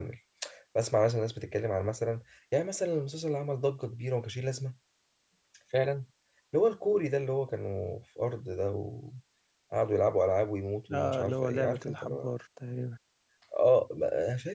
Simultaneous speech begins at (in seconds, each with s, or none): 10.9 s